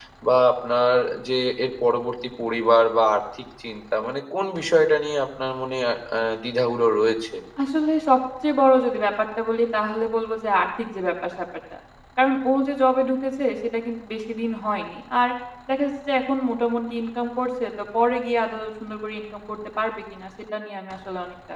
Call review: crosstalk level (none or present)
none